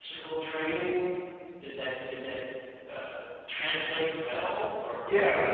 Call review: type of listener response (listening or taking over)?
taking over